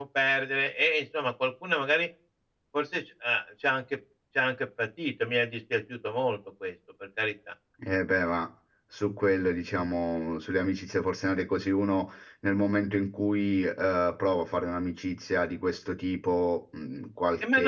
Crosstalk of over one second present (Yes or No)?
No